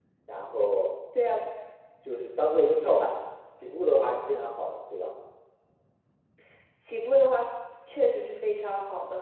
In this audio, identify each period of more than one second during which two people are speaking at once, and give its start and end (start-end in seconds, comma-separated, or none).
none